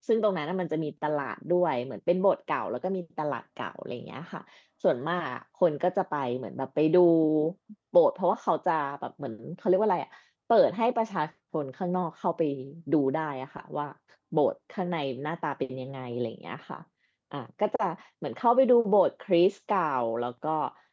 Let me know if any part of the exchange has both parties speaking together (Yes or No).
No